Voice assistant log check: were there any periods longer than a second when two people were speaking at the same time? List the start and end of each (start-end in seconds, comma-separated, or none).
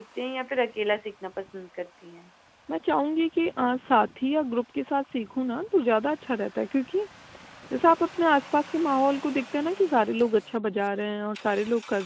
none